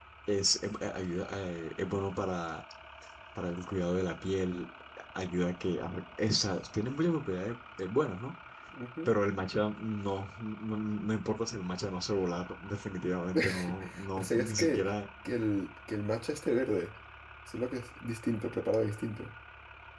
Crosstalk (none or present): present